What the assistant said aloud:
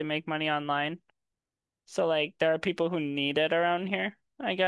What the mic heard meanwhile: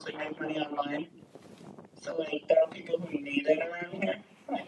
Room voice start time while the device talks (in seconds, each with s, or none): none